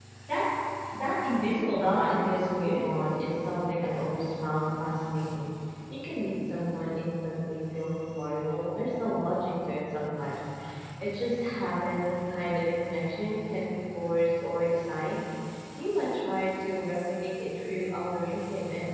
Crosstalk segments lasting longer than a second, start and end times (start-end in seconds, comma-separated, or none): 1.8-3.0